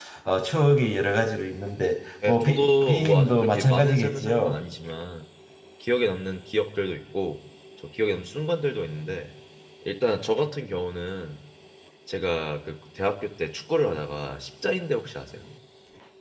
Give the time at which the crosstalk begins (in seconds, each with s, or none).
2.2 s